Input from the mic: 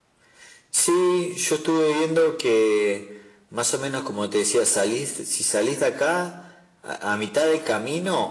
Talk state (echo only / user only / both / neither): echo only